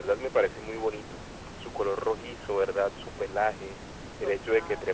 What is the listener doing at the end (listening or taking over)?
listening